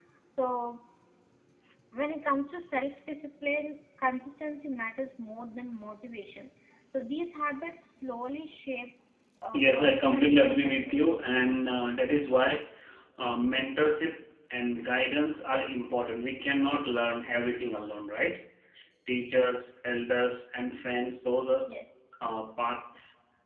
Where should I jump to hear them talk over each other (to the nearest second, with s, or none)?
10 s